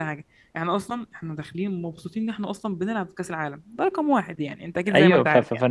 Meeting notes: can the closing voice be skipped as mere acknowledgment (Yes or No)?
No